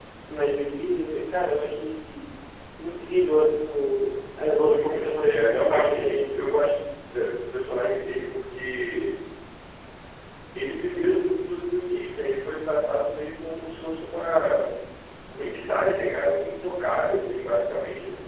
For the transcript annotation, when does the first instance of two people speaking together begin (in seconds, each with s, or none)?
4.7 s